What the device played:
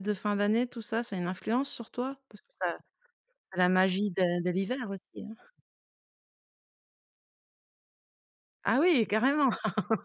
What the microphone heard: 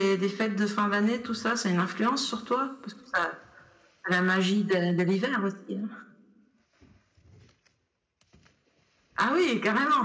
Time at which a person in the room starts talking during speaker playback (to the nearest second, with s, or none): none